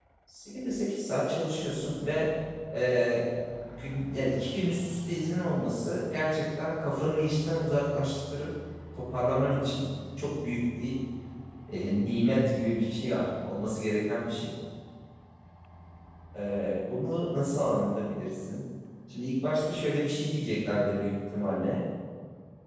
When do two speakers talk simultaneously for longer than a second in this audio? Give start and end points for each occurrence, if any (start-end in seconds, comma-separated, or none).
none